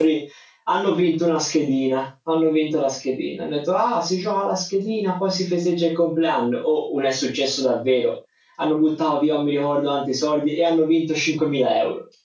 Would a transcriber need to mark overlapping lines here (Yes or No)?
No